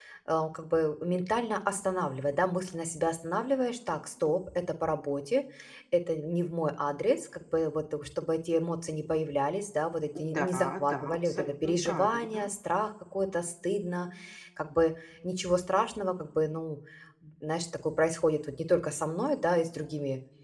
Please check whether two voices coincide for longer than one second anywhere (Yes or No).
Yes